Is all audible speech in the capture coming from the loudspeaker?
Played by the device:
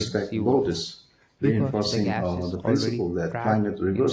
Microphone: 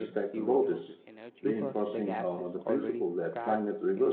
No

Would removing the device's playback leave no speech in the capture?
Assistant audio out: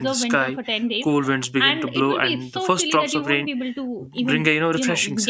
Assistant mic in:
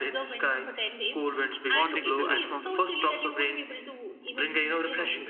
No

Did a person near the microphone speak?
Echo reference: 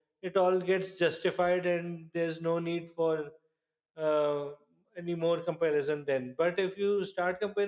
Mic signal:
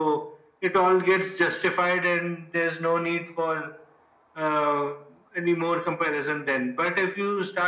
No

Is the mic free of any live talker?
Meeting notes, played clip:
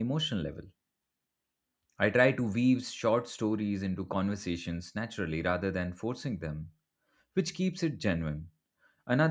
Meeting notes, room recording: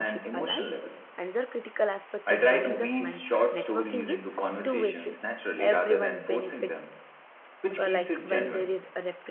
No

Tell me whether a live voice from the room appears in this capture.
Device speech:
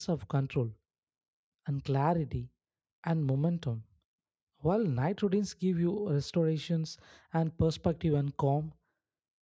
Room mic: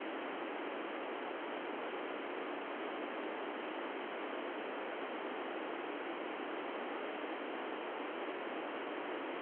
No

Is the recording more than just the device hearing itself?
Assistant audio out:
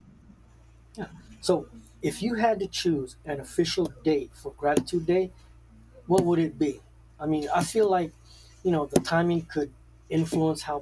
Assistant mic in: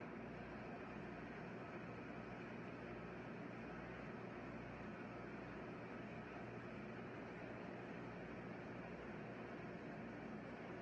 No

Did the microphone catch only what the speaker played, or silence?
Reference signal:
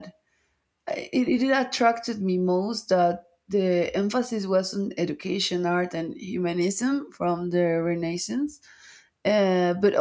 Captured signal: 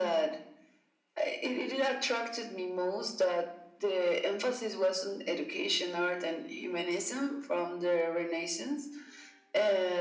Yes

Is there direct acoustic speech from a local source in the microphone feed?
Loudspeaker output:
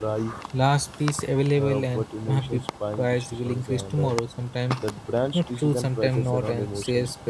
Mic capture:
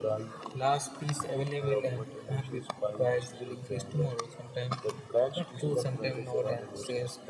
No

